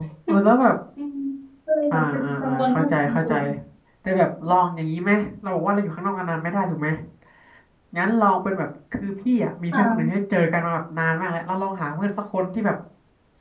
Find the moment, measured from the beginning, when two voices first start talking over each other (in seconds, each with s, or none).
1.9 s